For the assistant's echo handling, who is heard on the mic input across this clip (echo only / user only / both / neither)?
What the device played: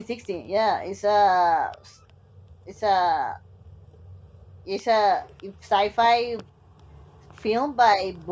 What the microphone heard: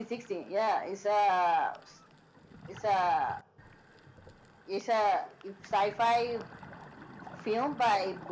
echo only